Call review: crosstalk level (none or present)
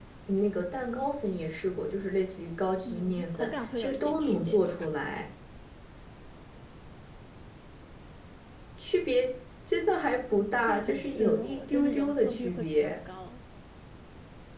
present